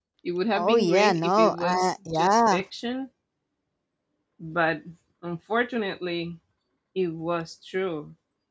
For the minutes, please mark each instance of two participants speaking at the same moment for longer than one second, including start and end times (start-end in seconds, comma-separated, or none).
0.6-2.6